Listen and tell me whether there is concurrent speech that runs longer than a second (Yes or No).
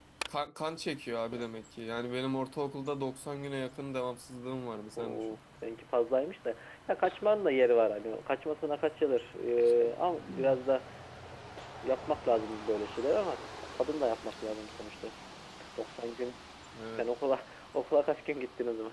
No